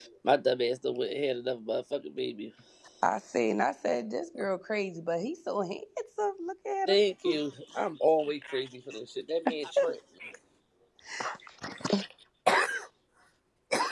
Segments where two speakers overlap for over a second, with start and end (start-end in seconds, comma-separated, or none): none